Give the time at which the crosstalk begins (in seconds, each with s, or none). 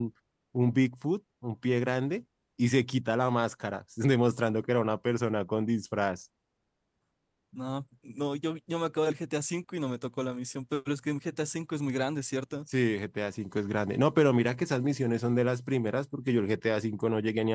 none